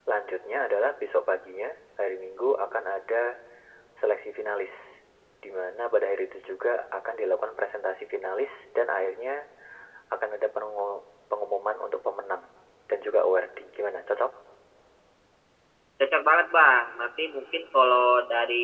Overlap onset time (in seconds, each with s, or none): none